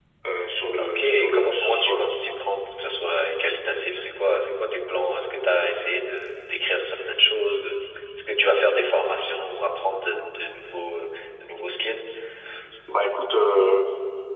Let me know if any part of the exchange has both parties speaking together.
Yes, from 0.8 s

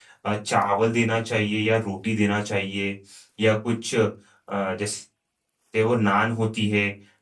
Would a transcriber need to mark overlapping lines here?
No

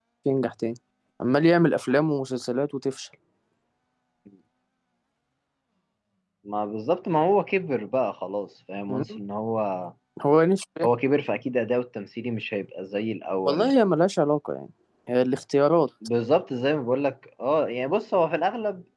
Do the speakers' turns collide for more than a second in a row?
No

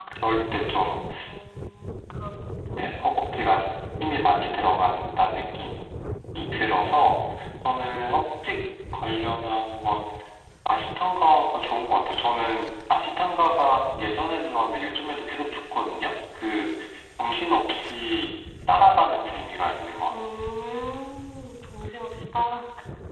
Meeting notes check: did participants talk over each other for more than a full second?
No

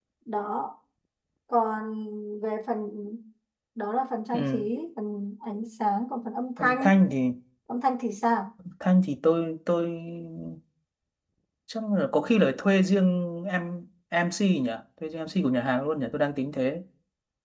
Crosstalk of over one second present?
No

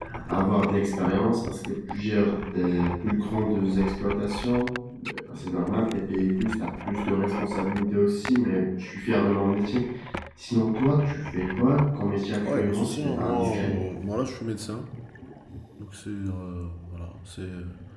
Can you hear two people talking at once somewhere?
Yes, from 12.3 s

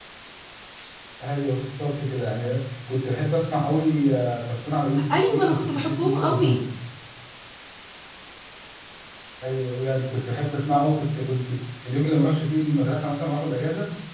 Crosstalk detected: Yes, from 5.1 s

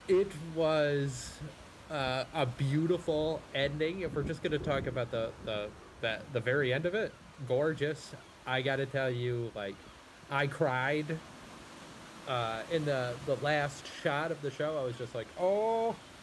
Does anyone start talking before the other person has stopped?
No

